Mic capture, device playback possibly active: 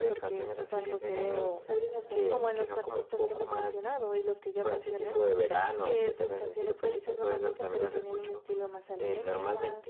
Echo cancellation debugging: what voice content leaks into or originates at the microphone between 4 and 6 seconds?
echo only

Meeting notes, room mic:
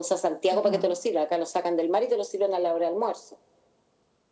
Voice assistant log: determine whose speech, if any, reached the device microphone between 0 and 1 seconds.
both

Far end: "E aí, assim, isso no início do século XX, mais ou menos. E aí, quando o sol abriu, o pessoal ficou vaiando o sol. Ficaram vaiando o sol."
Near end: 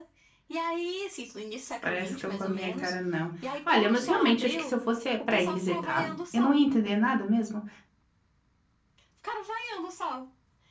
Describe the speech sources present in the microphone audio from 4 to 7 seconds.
both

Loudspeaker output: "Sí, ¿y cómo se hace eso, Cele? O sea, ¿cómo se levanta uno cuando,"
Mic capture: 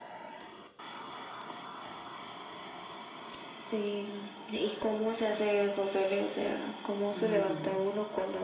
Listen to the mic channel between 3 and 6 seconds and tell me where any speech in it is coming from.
echo only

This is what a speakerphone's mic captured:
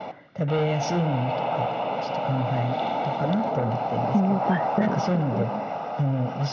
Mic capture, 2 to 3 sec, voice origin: echo only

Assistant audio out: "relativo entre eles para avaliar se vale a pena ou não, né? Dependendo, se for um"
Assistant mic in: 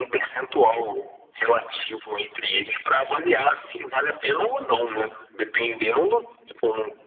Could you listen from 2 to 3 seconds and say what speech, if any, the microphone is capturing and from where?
echo only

